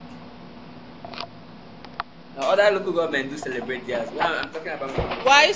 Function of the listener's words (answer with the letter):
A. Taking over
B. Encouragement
A